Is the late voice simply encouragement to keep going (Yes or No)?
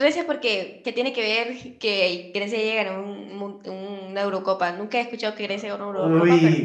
No